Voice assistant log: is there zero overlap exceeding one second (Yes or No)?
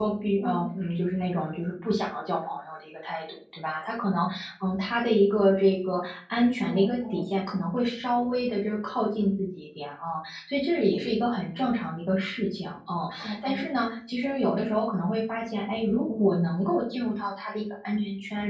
Yes